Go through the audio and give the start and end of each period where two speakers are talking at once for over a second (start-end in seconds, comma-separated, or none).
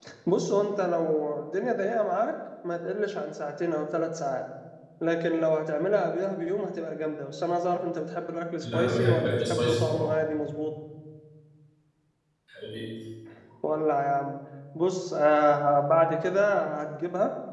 8.7-10.1